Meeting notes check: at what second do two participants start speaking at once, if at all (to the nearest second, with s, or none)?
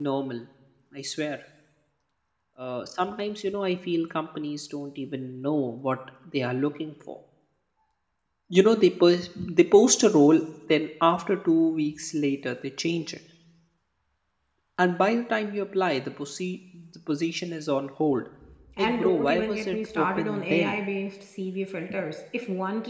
19 s